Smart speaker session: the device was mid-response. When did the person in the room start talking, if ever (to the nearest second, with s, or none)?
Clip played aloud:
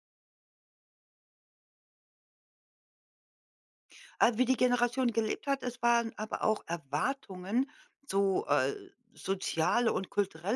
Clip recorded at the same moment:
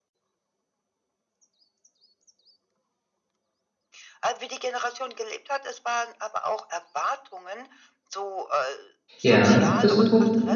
9 s